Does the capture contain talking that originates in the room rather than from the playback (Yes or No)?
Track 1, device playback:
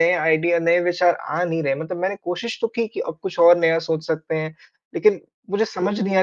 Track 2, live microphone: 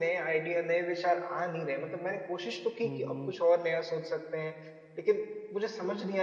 Yes